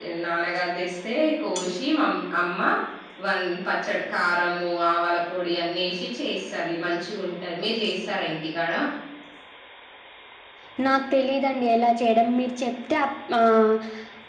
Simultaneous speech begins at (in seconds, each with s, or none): none